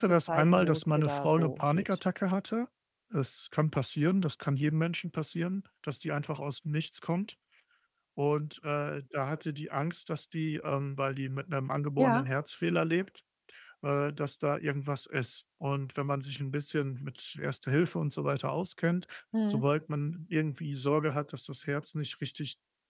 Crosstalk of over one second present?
Yes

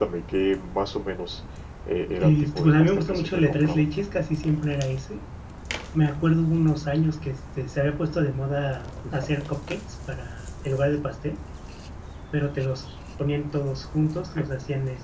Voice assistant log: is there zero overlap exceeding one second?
No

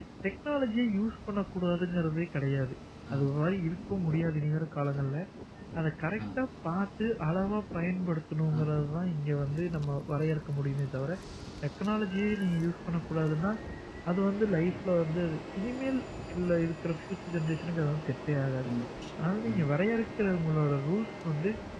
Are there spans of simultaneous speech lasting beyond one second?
No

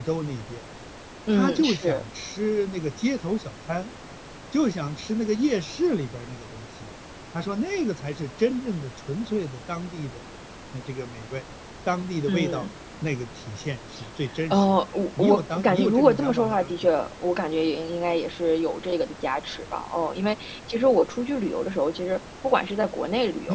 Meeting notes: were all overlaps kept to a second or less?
No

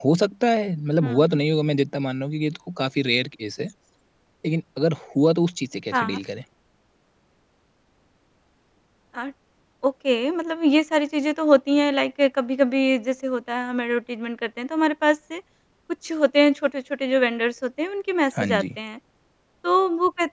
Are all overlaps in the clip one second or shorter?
Yes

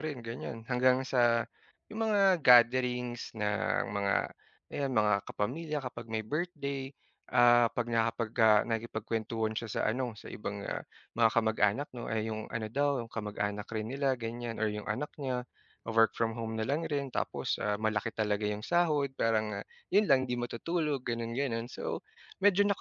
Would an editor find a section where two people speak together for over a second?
No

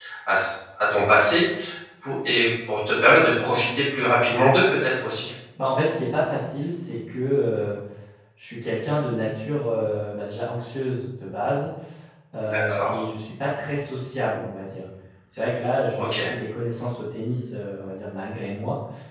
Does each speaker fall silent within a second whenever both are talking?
Yes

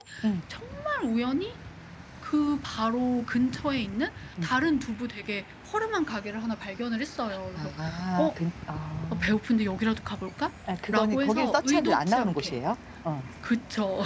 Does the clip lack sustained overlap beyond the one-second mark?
No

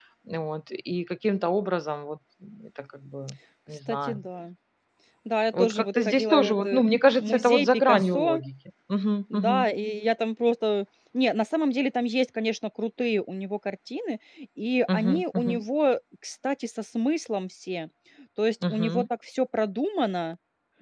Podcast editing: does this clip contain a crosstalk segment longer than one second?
Yes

